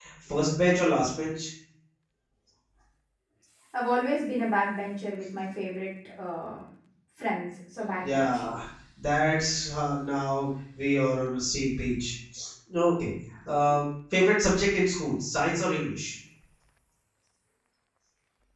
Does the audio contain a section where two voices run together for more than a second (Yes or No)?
No